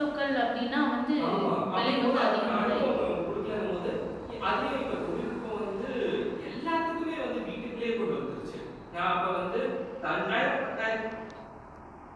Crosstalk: present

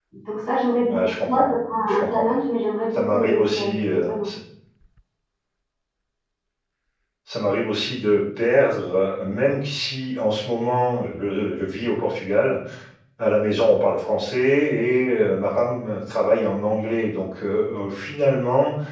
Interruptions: present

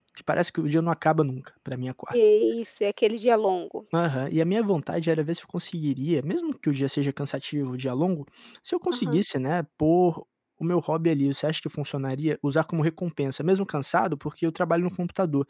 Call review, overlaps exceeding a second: none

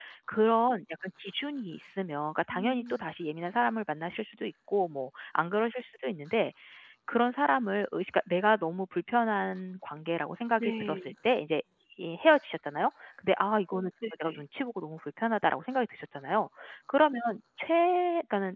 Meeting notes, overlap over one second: none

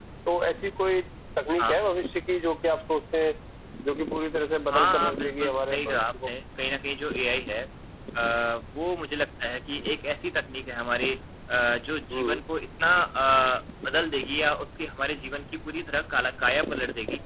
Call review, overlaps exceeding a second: present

